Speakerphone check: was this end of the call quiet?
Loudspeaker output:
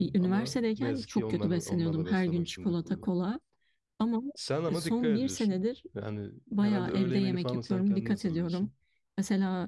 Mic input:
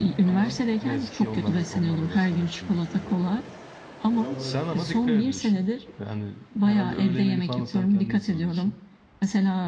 No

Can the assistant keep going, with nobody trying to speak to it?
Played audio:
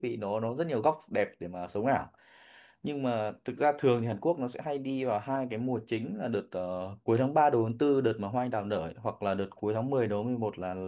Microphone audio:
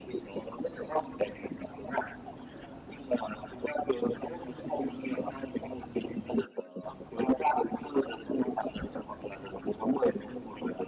Yes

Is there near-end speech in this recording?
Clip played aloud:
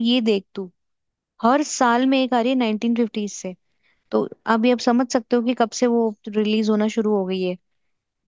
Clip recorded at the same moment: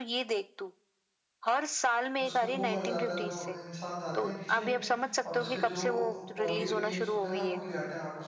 Yes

